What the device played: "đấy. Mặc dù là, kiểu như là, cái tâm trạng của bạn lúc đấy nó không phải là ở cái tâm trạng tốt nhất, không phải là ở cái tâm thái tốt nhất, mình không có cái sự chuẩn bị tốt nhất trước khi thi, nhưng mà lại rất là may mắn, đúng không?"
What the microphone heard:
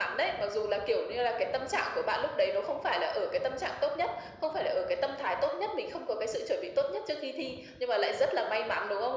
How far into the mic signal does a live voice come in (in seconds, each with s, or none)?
none